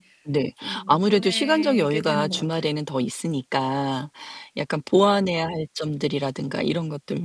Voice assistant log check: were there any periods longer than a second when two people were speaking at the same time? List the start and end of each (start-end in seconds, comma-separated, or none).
0.9-2.7